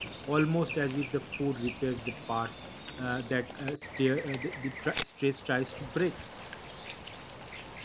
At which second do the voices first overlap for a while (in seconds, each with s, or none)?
none